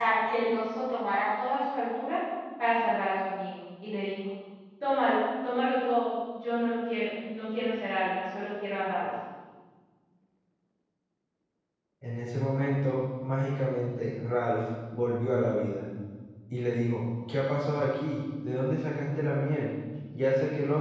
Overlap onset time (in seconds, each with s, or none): none